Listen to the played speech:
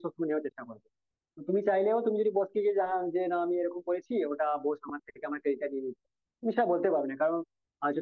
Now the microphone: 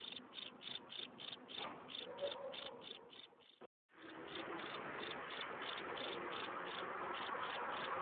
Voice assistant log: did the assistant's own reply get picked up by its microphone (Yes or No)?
No